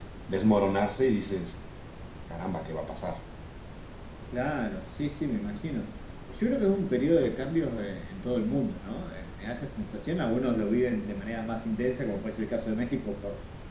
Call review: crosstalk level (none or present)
none